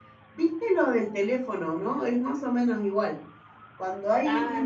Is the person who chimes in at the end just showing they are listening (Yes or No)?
Yes